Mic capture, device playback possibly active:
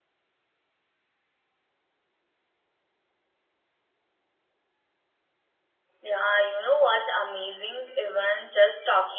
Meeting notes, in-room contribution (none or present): present